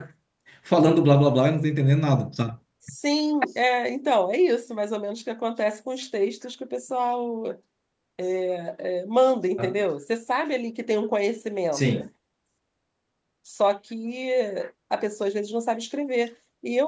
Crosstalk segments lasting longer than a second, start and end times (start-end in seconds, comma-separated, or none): none